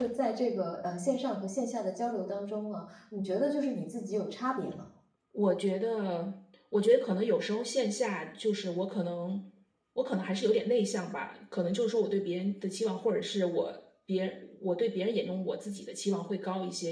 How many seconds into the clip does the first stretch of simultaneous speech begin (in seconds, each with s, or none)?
none